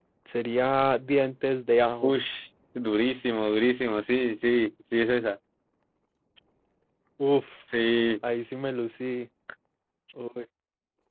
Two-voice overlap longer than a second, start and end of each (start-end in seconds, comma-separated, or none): none